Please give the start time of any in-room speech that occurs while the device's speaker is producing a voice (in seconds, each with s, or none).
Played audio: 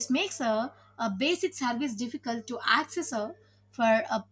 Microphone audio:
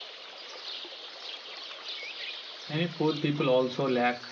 2.7 s